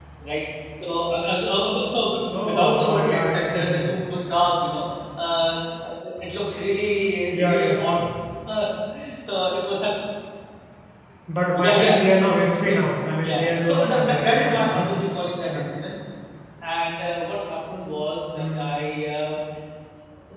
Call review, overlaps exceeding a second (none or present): present